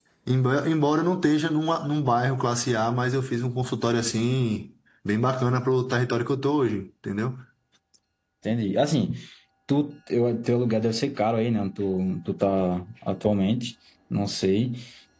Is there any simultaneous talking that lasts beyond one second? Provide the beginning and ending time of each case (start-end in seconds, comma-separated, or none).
none